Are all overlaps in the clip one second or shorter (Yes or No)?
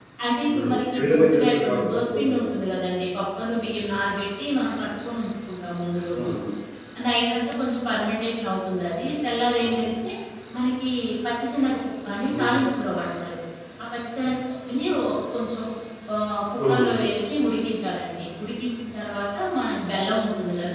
No